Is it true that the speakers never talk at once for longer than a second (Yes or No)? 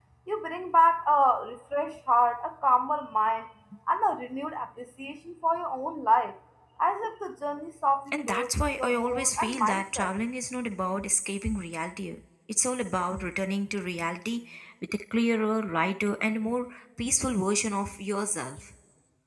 No